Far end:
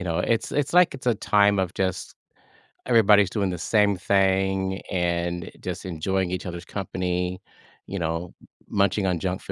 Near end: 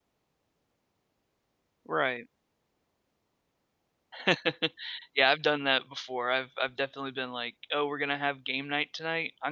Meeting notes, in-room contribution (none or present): present